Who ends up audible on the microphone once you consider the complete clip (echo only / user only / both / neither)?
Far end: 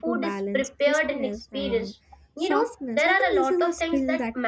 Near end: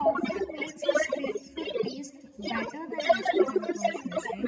both